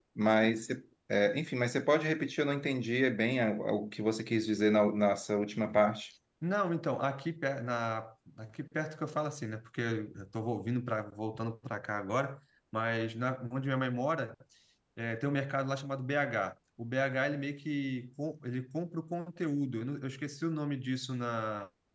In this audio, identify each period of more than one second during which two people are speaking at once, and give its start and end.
none

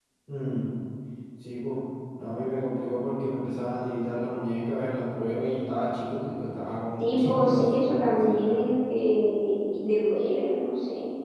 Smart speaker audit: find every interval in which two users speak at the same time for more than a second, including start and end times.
7.0-8.6

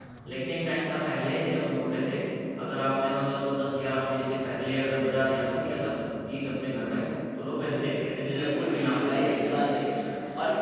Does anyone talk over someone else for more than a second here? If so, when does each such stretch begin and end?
8.3-9.6

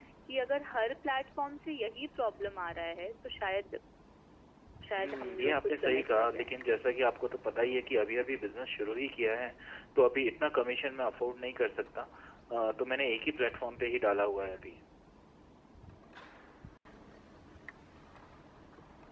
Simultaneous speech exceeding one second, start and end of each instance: 5.0-6.5

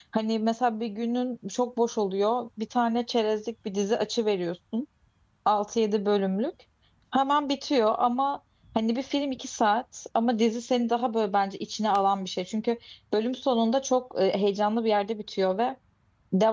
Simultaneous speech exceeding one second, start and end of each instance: none

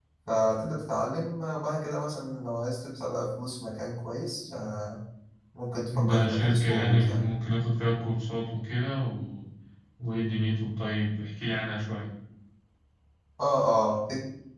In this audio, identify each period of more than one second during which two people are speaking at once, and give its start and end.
6.0-7.2

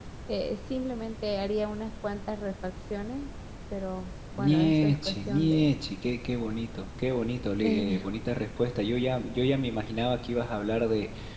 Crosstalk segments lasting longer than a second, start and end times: 4.4-5.7

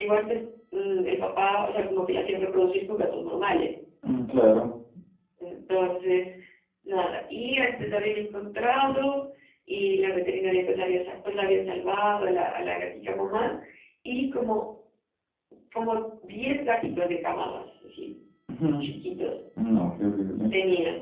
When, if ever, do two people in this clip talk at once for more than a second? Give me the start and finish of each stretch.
none

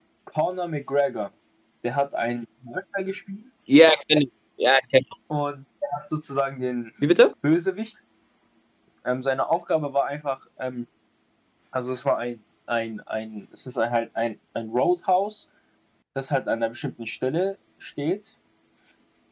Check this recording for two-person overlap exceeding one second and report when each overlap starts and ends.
none

